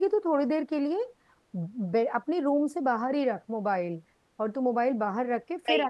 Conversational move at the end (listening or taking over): listening